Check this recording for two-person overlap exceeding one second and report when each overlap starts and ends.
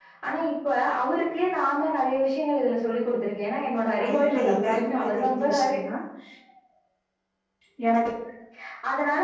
4.1-5.8

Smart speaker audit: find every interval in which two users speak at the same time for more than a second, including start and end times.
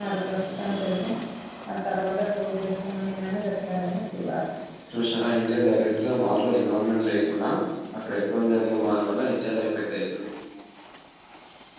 none

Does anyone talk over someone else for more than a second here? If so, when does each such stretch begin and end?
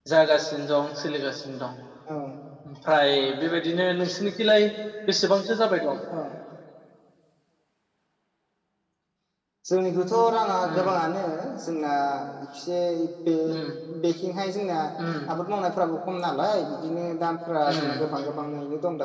none

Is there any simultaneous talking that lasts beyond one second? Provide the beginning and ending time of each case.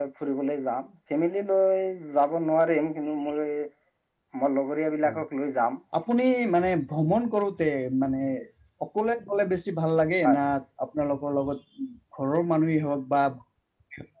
none

